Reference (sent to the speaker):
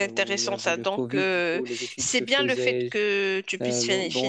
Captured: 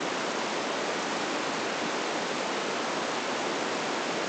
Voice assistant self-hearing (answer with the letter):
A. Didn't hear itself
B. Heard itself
A